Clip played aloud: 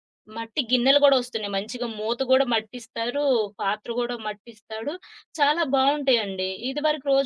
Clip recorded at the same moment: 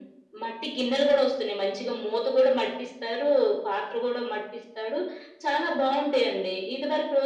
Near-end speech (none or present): none